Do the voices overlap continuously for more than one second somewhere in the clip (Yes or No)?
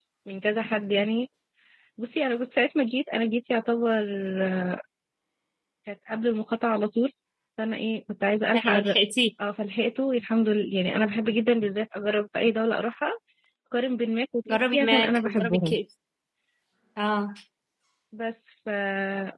Yes